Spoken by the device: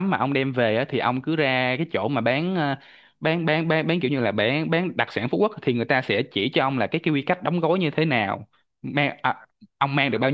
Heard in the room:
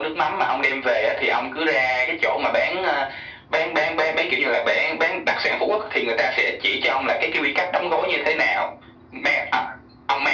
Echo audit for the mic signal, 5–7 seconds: echo only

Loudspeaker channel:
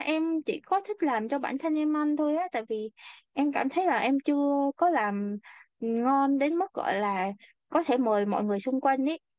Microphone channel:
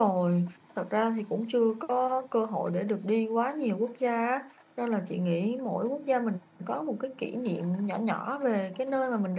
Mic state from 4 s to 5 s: user only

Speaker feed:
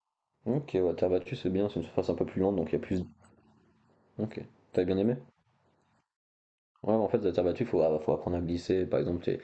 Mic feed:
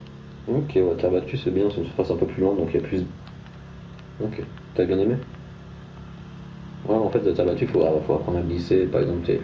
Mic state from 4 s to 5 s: echo only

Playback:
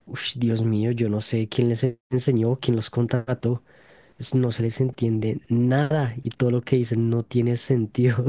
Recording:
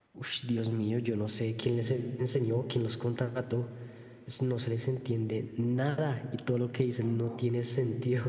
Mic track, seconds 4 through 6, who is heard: echo only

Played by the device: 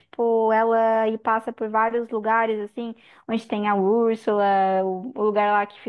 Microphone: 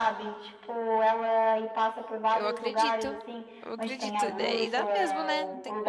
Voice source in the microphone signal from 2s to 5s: both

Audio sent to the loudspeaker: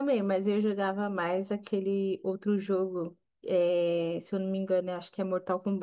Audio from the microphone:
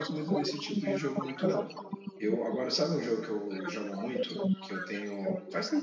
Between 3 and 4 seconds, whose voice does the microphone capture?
both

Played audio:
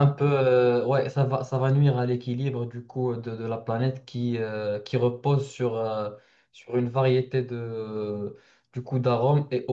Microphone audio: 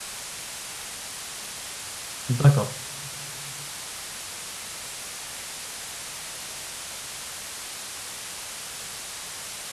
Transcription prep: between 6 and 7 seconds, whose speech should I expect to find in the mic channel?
neither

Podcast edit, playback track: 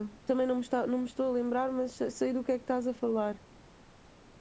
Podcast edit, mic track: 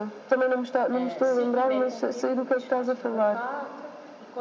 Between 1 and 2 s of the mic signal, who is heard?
both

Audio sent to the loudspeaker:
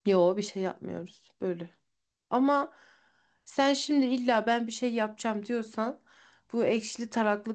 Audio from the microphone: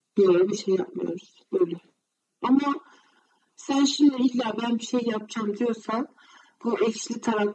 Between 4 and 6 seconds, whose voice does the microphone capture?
echo only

